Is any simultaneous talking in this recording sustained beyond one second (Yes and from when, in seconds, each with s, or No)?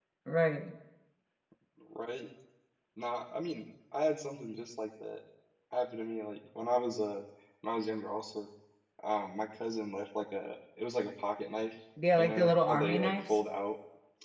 Yes, from 12.1 s